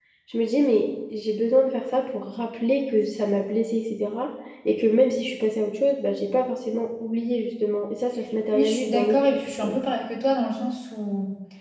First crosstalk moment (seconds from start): 8.5 s

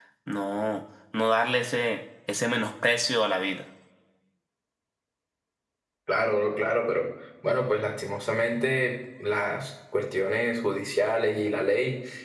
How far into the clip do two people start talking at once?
none

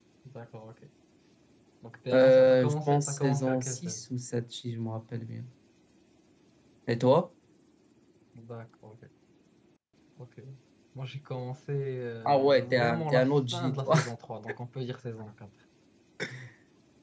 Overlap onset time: 2.1 s

